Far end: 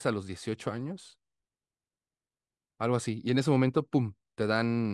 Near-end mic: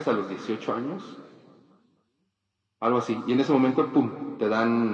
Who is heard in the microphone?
echo only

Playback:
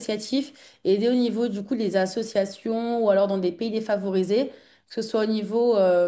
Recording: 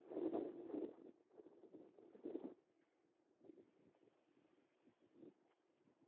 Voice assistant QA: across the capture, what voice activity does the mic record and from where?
neither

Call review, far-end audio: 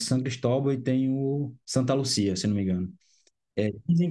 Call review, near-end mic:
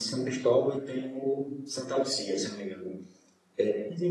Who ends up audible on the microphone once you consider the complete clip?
echo only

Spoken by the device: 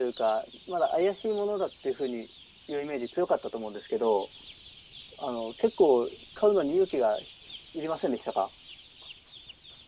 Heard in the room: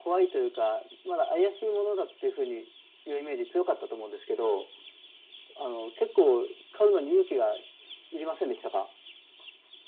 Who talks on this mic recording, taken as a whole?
echo only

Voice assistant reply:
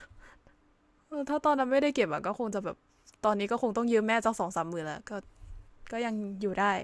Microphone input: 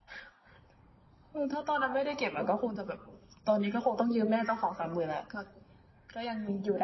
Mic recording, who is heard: echo only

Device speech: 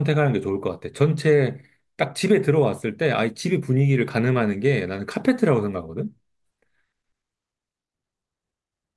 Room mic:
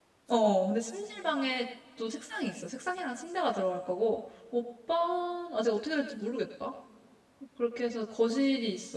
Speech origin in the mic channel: user only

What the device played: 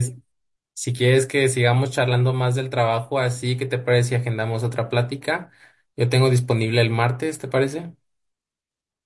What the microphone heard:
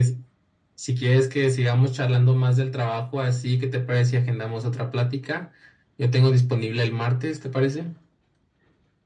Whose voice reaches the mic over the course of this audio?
echo only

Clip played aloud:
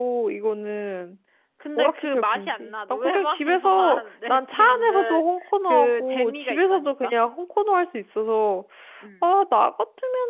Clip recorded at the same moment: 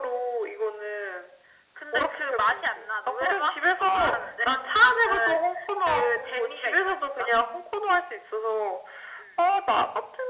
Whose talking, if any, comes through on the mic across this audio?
echo only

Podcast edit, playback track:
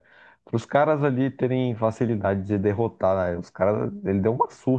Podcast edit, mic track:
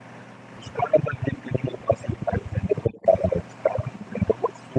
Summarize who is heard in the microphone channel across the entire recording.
echo only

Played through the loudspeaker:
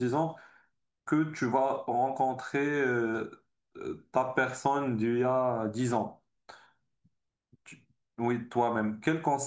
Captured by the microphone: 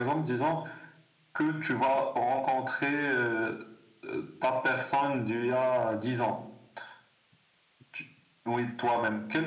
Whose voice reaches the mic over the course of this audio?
echo only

